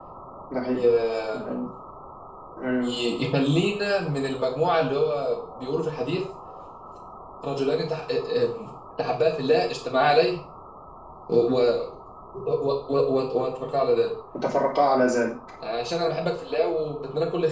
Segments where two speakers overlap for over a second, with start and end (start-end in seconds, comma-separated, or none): none